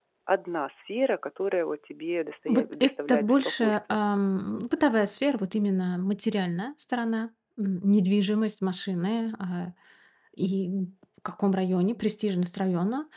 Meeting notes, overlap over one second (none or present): present